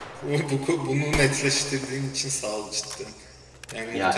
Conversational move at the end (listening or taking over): listening